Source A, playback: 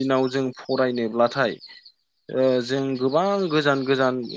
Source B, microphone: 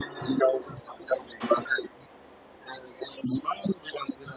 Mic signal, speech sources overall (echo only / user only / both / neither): echo only